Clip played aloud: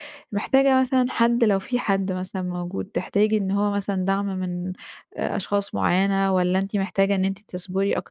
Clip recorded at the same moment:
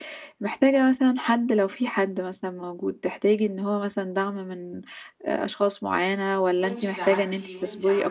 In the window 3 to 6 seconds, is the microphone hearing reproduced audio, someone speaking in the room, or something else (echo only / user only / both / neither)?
echo only